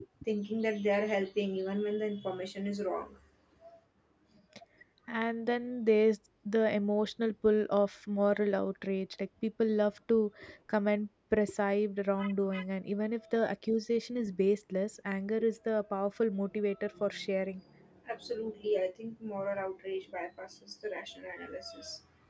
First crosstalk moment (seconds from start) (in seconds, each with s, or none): none